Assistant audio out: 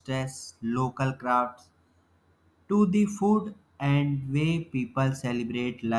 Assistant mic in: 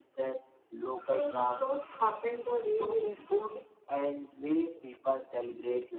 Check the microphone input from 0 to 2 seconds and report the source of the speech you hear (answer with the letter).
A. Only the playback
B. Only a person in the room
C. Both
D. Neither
C